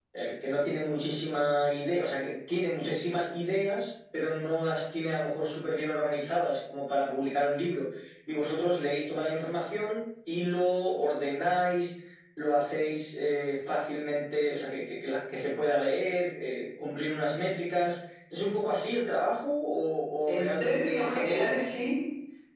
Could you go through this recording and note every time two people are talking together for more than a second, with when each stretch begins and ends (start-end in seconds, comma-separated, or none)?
20.3-21.8